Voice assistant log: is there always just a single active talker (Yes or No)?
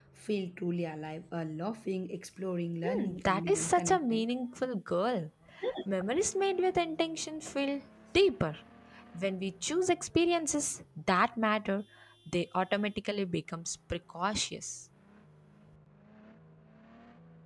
No